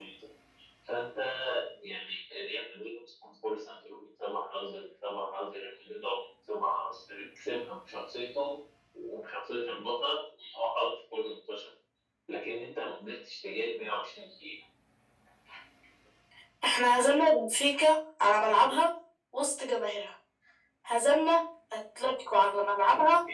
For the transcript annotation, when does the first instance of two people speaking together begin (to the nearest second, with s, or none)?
none